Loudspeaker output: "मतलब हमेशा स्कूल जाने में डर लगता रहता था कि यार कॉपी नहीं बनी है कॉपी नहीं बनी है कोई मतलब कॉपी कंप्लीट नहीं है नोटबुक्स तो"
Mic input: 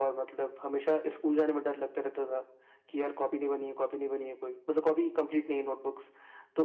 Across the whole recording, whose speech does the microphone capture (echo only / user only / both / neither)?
echo only